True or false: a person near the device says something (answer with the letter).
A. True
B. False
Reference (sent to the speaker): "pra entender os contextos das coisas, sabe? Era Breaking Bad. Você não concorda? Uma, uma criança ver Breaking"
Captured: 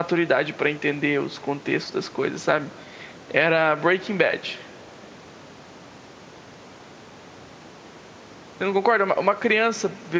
B